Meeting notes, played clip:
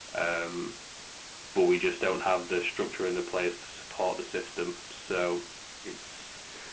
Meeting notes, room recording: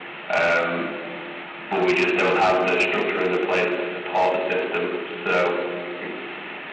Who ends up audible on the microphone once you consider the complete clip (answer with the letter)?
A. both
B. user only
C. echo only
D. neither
C